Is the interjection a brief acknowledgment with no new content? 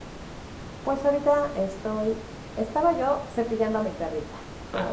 No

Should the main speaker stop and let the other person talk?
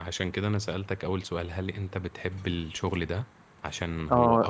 Yes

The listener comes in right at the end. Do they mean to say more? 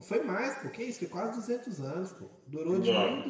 No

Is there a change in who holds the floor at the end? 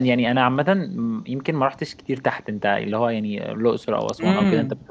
Yes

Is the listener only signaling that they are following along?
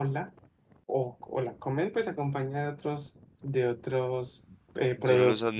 No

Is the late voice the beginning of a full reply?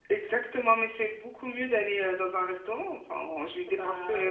Yes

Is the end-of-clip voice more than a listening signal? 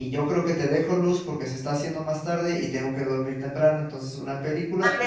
Yes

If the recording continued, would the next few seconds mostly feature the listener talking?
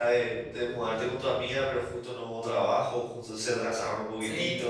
Yes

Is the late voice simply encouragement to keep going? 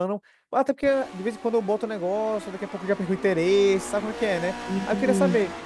Yes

